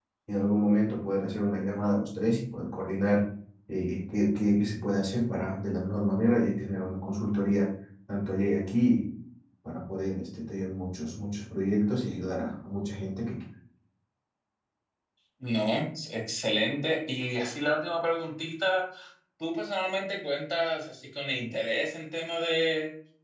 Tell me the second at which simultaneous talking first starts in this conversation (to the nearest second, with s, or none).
none